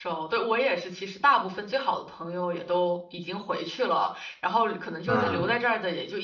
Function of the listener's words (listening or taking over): listening